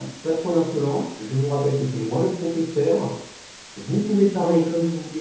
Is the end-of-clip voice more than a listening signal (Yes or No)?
No